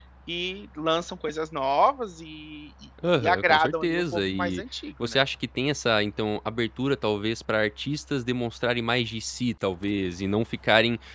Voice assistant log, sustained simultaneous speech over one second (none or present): present